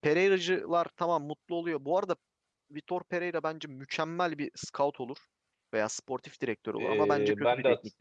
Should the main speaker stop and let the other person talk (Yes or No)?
Yes